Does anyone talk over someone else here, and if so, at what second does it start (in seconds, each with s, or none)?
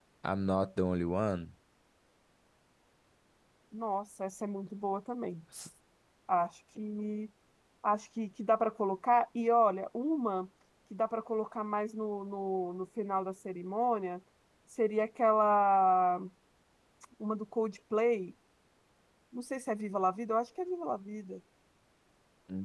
none